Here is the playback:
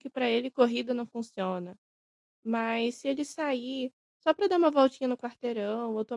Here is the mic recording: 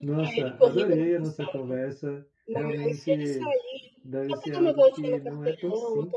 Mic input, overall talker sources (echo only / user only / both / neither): both